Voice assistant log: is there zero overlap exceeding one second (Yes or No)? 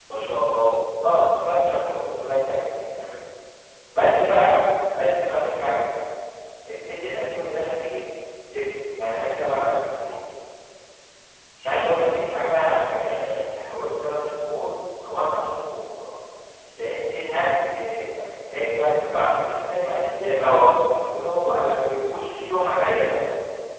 Yes